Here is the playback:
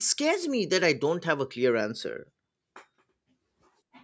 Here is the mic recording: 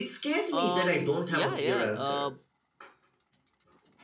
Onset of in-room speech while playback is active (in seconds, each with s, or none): 0.5 s